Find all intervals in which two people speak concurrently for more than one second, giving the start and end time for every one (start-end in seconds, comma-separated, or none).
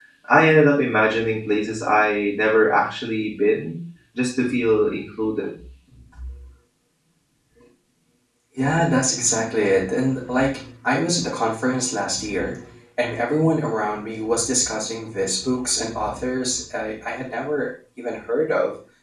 none